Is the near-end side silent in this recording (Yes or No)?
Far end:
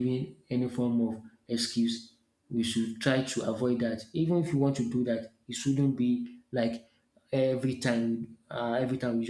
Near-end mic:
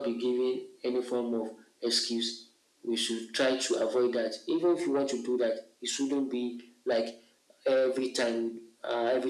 Yes